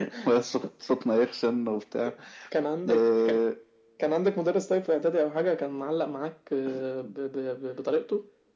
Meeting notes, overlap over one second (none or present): none